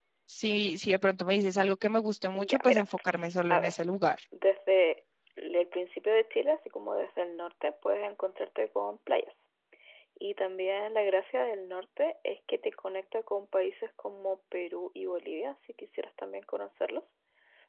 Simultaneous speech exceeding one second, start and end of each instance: none

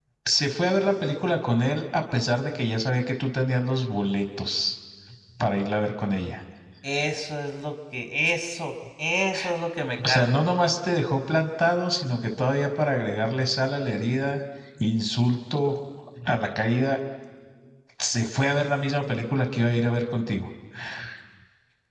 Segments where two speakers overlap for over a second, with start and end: none

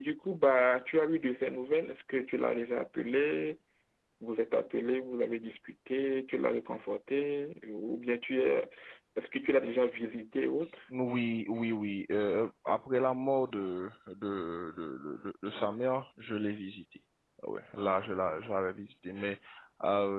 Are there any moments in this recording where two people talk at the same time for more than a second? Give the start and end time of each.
none

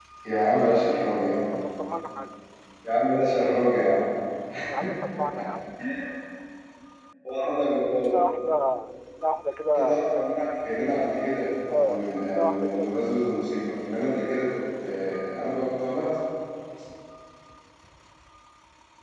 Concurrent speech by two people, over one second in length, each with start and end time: 11.7-12.9

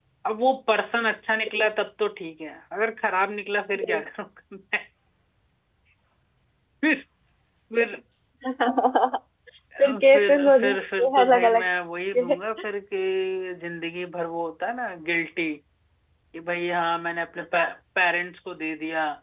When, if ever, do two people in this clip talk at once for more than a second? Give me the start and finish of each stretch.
9.8-11.6

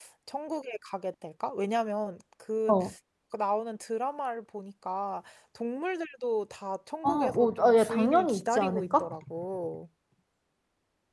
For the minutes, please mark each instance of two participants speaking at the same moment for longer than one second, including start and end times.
7.0-9.1

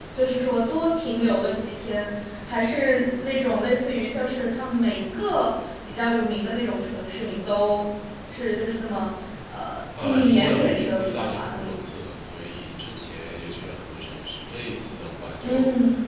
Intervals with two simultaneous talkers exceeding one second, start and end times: 10.0-11.8

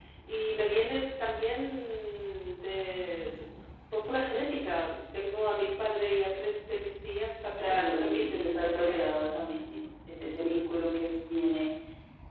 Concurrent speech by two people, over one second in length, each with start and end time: 7.6-9.1

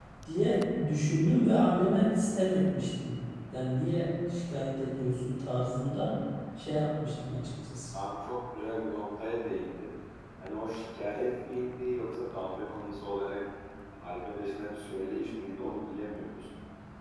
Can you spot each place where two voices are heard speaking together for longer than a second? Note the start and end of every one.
none

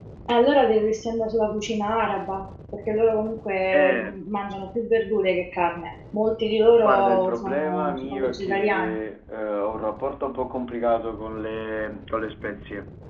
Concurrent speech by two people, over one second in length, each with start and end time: 6.8-9.0

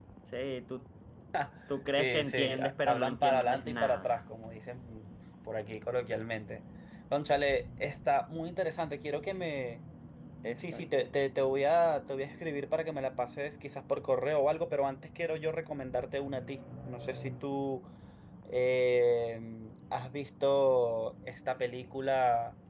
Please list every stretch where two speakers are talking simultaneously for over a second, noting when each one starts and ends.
2.0-4.2

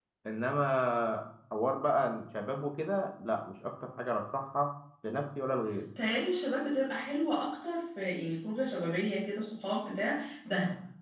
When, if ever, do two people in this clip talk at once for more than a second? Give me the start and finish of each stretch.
none

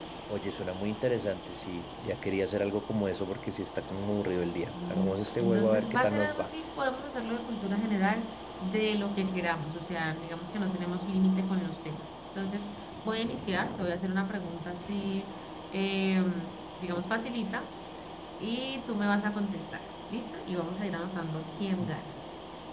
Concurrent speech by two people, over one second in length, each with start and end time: 4.7-6.5

